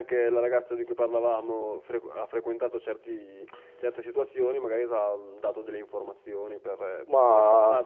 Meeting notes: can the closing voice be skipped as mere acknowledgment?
Yes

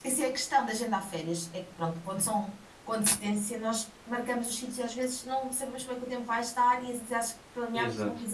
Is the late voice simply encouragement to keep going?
Yes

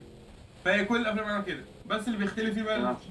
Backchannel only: Yes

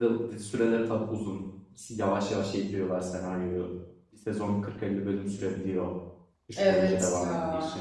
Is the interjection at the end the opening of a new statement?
Yes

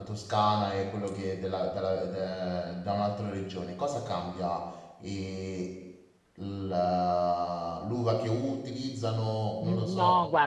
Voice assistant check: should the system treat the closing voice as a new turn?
Yes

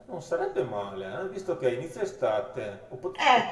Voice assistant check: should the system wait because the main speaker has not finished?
Yes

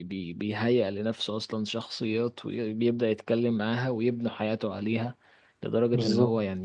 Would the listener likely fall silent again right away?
Yes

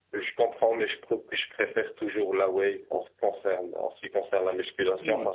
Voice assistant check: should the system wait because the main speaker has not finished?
Yes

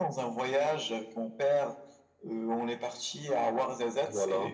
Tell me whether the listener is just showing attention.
Yes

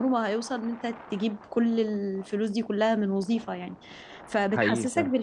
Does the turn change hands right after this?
No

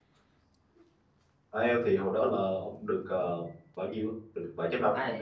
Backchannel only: No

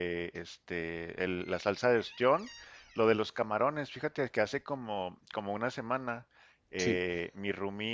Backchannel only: Yes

